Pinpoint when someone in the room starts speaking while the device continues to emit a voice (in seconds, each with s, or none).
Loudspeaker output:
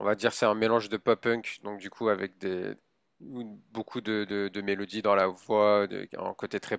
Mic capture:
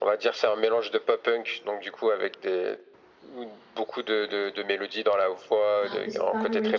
5.8 s